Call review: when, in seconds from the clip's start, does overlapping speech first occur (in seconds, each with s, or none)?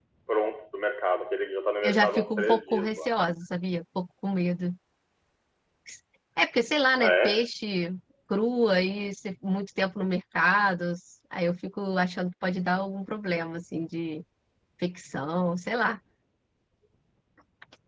1.8 s